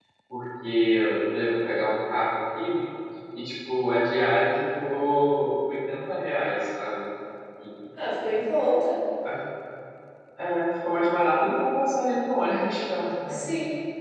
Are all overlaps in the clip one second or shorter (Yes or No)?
Yes